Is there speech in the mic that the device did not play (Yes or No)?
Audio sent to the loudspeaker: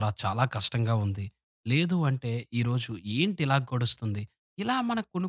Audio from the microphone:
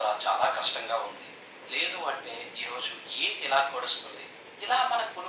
No